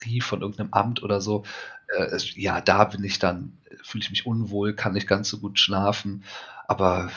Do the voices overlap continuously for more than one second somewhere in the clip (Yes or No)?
No